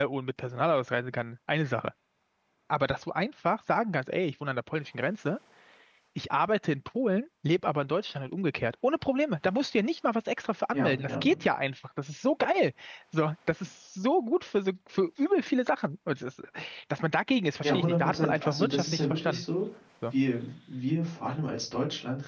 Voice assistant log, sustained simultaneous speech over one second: present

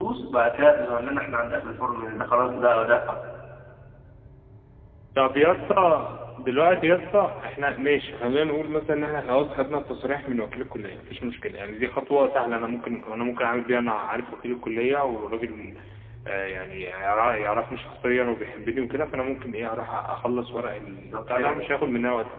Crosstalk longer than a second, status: none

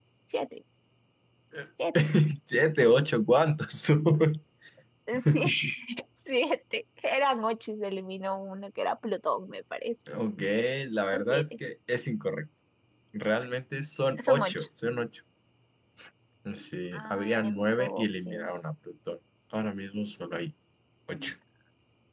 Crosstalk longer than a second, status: present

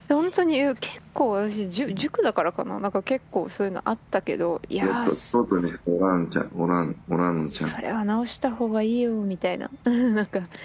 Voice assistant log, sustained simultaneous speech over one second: none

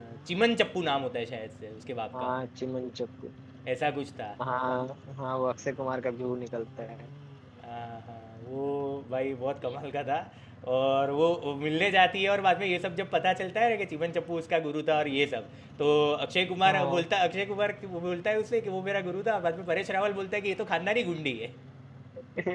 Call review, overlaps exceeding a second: none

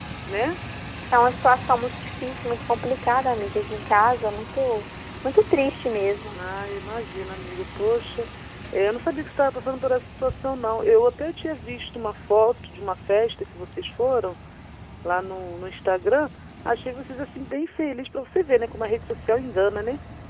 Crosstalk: none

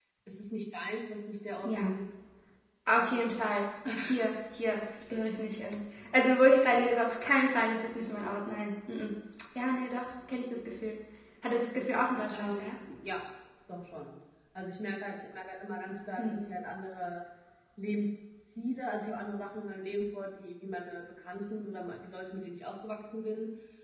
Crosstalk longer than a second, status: none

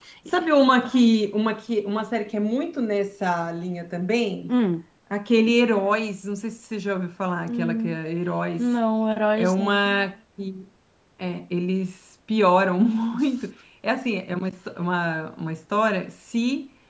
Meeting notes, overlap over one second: none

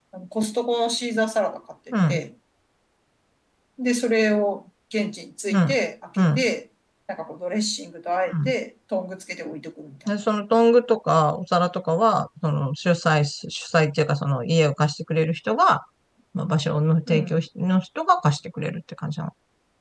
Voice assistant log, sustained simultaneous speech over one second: none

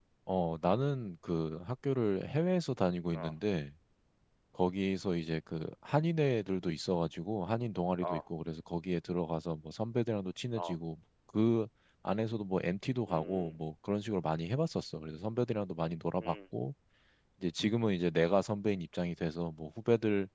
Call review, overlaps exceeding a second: none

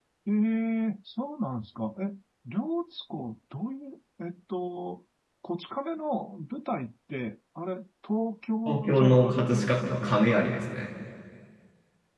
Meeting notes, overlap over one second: present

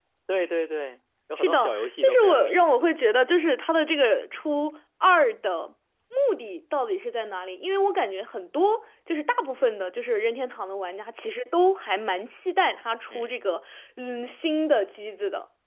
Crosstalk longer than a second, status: present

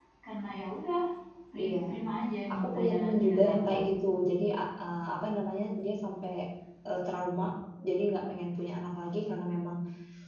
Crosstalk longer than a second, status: present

